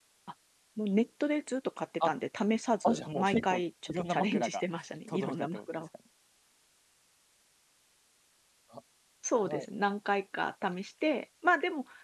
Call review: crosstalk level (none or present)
present